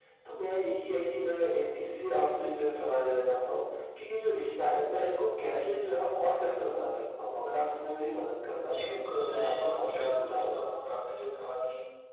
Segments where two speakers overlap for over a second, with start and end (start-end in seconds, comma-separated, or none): 9.1-10.8